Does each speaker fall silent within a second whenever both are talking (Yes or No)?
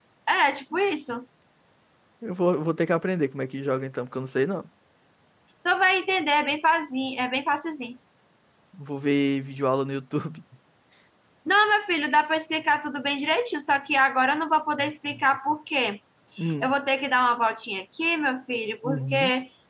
Yes